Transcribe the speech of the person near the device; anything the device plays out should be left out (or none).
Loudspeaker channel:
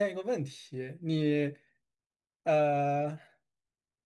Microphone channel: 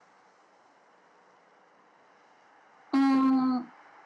嗯，